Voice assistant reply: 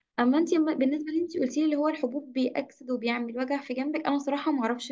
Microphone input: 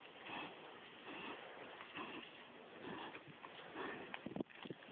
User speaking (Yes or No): No